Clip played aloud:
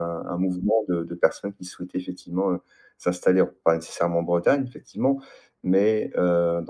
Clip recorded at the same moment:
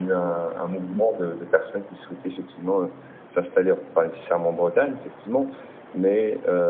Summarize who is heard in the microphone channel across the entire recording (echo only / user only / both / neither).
echo only